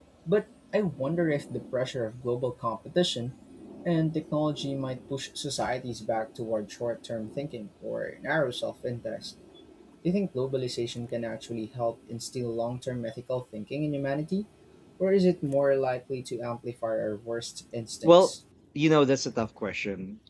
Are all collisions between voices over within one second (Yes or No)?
Yes